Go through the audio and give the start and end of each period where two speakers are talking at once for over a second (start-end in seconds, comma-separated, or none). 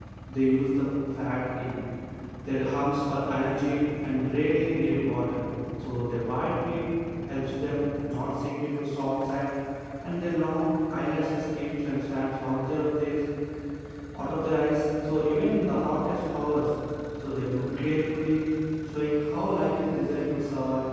none